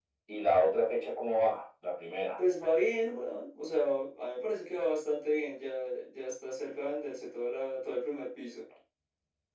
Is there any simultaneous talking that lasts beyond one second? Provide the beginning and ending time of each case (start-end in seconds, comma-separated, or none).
none